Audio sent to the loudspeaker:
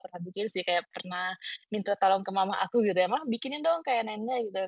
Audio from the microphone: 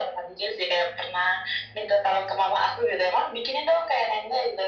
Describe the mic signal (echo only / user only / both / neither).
echo only